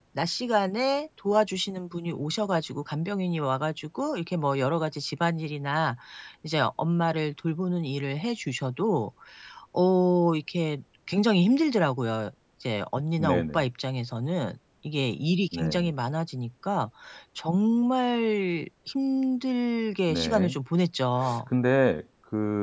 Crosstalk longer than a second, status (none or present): none